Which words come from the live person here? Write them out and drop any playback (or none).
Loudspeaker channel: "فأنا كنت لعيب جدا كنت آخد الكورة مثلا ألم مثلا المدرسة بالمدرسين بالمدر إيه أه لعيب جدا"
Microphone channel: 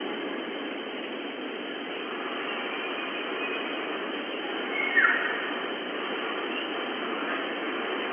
none